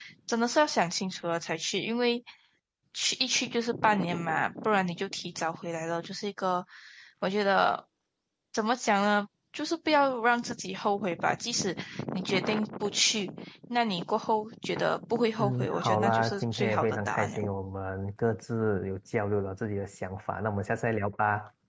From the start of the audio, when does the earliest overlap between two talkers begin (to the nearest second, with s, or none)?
15 s